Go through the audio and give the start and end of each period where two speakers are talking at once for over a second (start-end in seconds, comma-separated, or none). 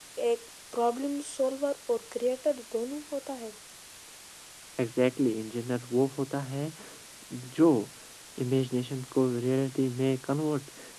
none